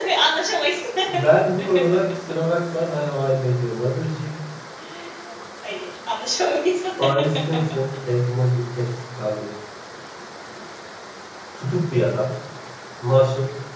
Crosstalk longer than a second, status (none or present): none